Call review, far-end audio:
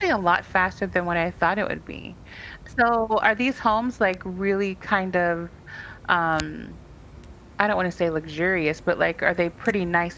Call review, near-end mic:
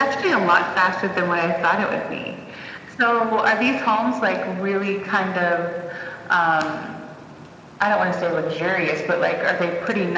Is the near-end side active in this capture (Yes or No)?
No